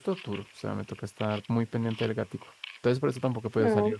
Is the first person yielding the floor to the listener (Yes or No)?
Yes